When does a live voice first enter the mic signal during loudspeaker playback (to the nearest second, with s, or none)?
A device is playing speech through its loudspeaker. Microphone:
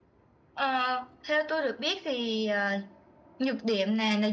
none